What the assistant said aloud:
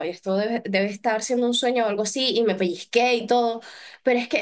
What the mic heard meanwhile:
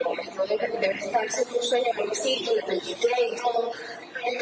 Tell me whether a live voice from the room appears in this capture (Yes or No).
No